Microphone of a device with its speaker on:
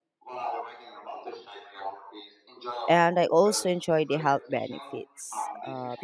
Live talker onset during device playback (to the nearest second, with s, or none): 3 s